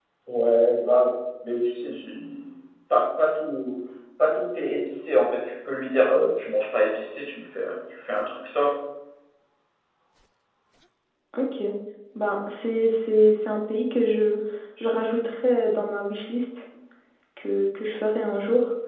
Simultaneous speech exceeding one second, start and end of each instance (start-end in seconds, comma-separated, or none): none